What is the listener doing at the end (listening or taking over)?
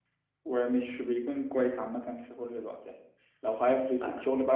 listening